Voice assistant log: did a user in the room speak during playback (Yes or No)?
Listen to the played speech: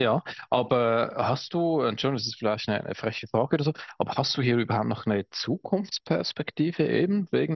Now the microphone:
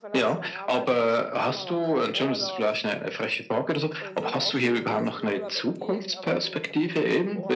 Yes